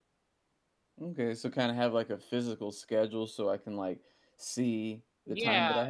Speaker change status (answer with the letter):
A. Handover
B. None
A